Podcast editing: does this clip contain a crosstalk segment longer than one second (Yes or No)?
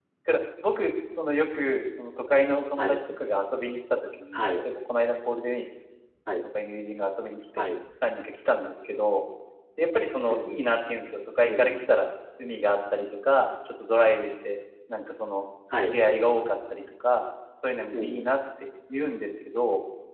No